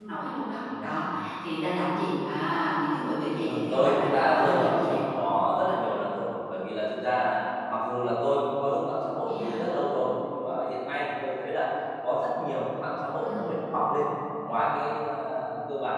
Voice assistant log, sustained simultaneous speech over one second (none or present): present